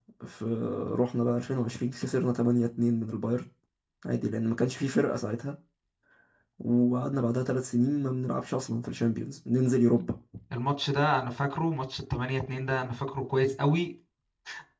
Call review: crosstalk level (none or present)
none